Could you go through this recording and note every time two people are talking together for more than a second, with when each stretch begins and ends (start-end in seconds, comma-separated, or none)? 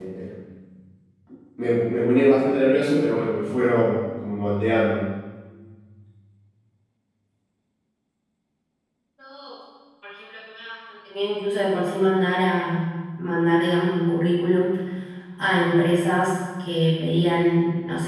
none